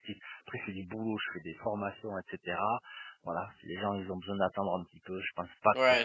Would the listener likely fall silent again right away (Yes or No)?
No